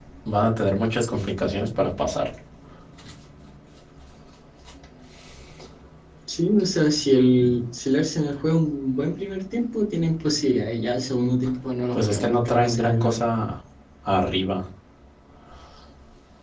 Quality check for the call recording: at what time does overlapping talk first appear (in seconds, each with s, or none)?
11.9 s